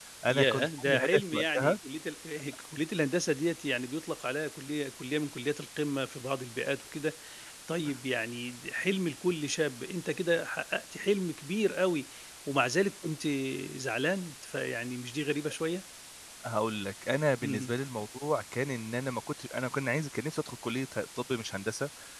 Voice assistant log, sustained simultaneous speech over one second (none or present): present